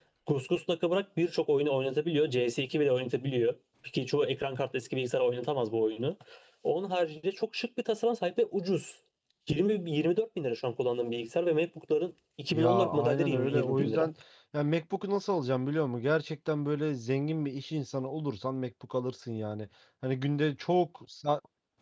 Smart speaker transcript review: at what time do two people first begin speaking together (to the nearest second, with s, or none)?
13 s